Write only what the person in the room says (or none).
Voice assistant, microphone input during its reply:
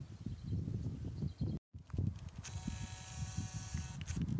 none